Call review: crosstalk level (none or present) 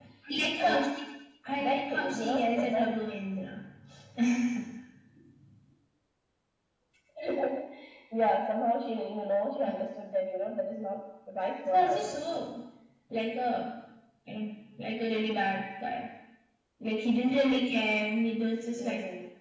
present